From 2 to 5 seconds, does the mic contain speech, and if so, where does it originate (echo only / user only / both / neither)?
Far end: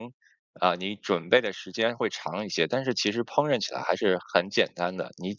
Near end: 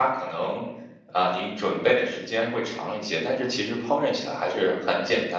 echo only